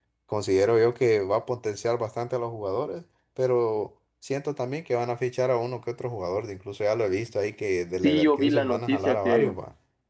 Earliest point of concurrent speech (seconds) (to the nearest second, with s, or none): 8 s